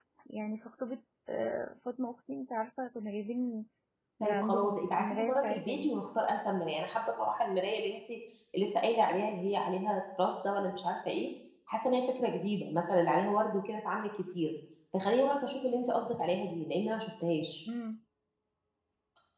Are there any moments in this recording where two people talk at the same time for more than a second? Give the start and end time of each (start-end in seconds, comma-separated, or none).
4.2-5.9